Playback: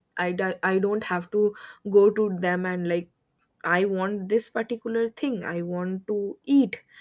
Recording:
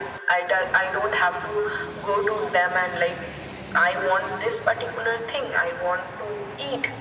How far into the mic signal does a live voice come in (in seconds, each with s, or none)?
none